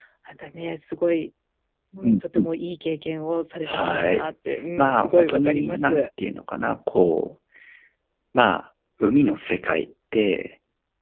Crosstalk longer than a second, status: present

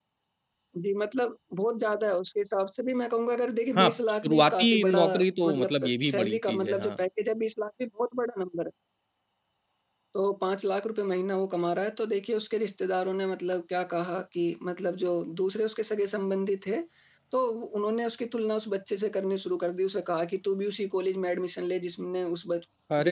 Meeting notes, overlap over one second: present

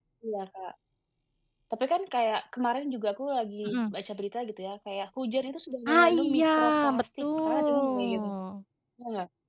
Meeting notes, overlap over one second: present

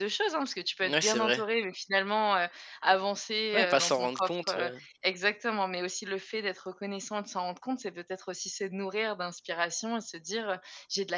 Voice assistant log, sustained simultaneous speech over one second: present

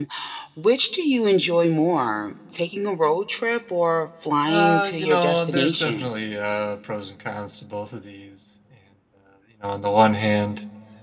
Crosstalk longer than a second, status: present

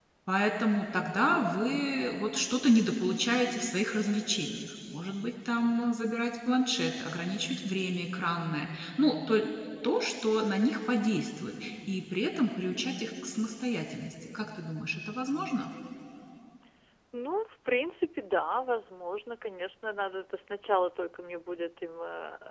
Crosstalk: none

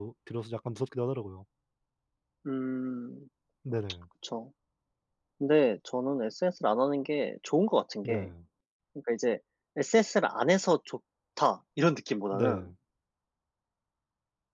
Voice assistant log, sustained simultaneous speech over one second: none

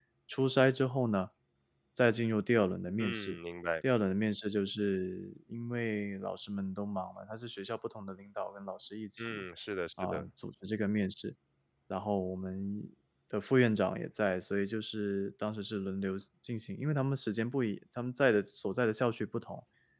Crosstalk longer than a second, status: none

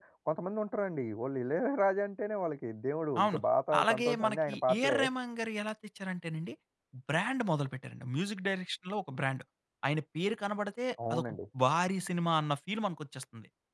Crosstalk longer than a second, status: present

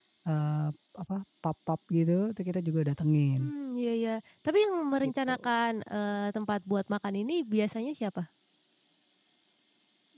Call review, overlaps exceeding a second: none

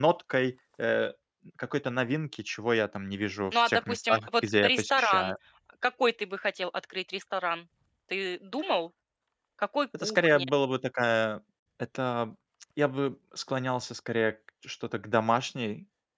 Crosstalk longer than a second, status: present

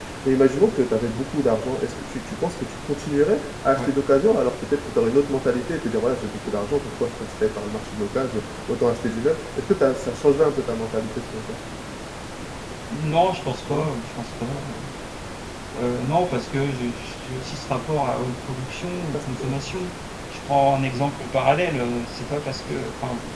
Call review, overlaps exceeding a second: none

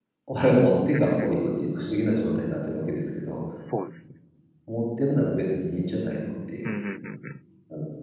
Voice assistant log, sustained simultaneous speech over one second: none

